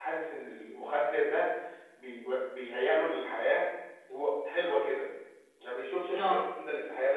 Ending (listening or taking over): listening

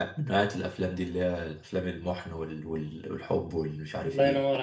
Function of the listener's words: taking over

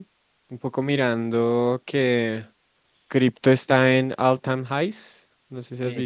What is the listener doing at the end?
taking over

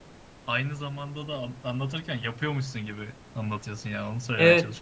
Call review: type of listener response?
taking over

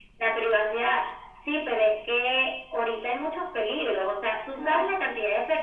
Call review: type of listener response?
listening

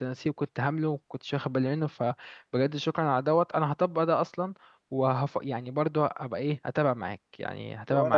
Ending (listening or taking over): taking over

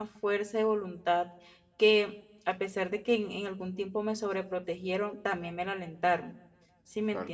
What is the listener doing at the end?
taking over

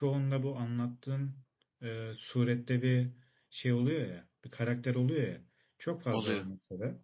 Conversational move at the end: listening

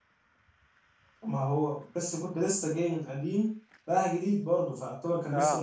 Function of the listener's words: taking over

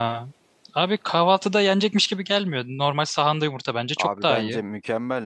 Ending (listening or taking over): taking over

